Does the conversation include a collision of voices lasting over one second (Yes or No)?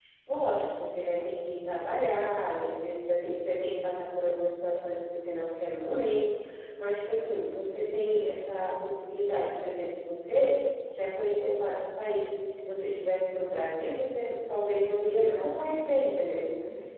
Yes